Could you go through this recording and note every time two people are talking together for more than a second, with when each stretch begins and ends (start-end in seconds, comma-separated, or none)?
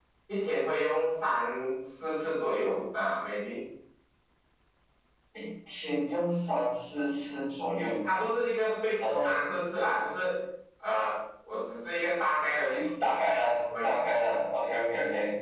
none